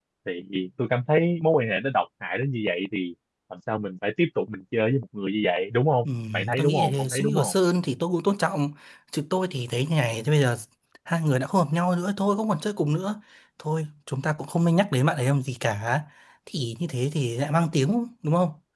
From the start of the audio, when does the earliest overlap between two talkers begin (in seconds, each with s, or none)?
6.0 s